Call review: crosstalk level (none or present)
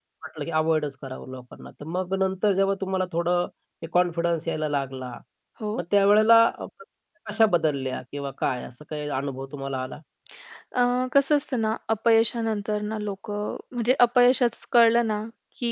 none